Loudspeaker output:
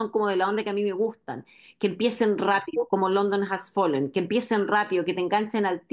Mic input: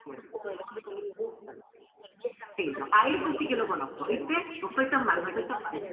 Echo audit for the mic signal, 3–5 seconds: both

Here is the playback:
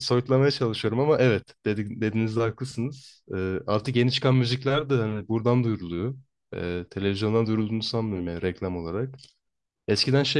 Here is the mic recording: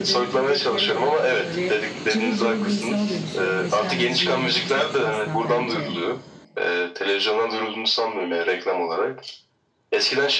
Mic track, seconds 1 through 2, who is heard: both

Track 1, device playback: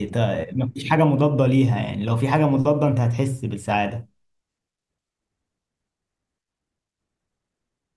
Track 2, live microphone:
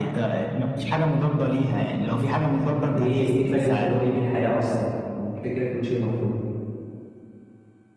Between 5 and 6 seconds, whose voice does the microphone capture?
user only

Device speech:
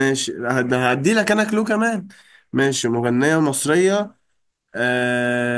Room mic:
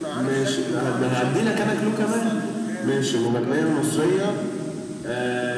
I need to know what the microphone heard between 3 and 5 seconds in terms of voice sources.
both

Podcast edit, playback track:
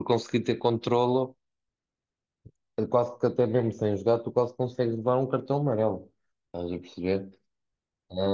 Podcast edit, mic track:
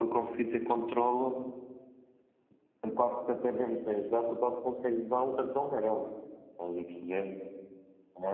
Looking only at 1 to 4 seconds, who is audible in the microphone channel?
echo only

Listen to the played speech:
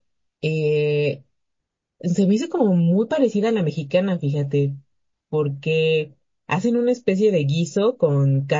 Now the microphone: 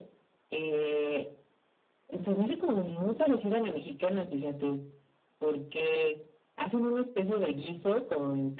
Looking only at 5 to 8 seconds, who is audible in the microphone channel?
echo only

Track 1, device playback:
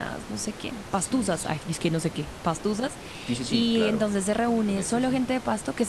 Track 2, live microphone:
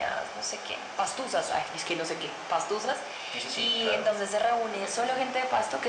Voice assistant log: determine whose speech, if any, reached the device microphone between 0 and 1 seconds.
echo only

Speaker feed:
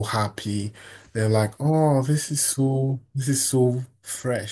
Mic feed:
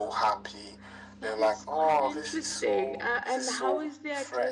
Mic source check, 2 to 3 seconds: both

